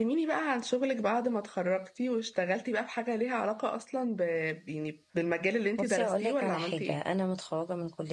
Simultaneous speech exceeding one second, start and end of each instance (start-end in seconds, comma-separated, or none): 5.8-7.0